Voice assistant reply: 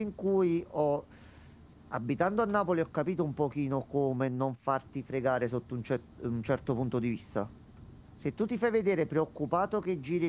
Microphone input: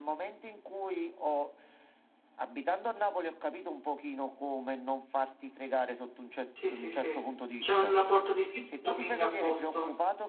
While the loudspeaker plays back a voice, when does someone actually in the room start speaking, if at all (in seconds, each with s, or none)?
6.5 s